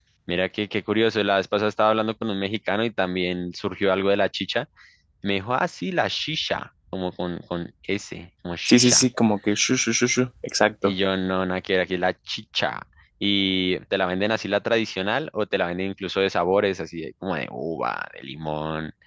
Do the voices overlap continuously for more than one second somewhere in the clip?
No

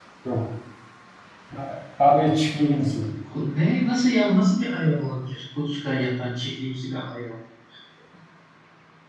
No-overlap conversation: Yes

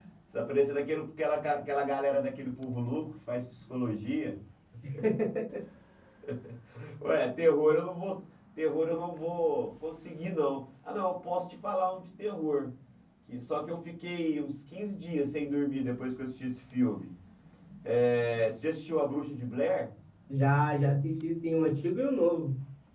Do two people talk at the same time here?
No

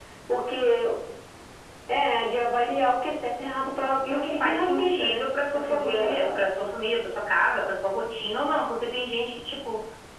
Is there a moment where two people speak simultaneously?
Yes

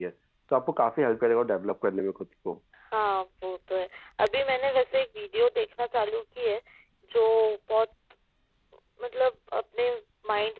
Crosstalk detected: No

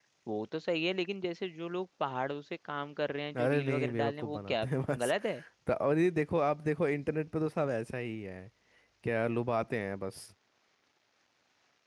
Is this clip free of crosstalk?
No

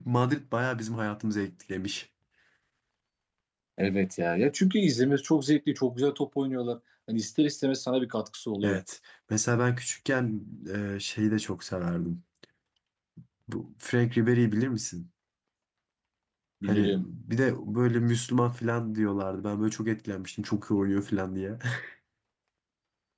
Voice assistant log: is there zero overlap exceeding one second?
Yes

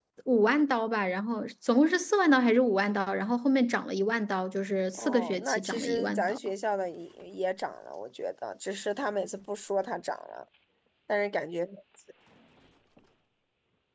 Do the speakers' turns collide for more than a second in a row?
Yes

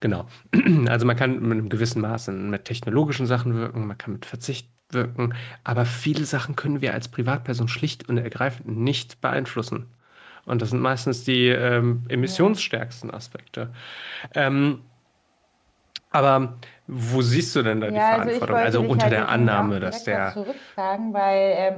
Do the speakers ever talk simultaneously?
Yes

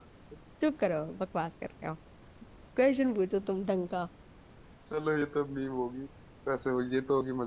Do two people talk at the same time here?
No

